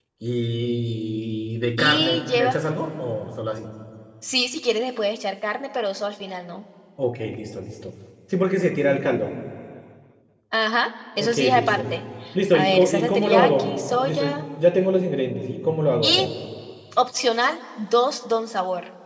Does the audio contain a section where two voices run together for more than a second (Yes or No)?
Yes